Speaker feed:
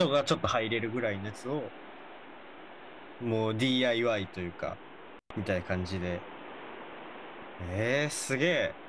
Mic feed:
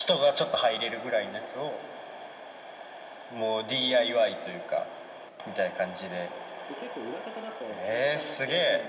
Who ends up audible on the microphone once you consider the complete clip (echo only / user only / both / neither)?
both